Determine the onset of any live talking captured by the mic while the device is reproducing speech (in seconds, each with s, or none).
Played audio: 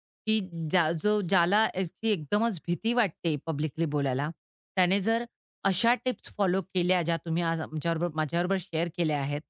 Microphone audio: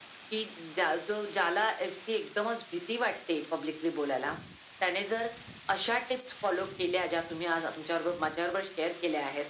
none